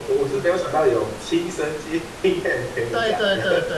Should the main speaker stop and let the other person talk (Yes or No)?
Yes